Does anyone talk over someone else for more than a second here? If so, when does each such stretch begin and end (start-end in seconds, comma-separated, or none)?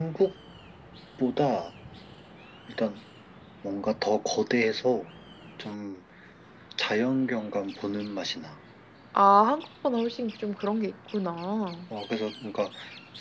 none